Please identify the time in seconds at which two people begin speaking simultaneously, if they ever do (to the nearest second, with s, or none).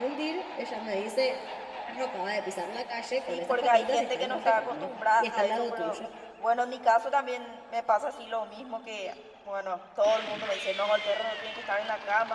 3 s